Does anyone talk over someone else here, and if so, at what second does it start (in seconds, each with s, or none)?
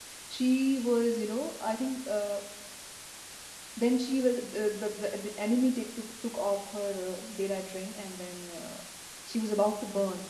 none